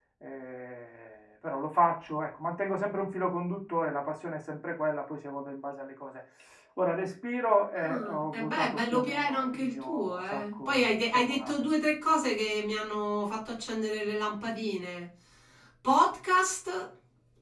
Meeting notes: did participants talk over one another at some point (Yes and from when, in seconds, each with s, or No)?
Yes, from 7.8 s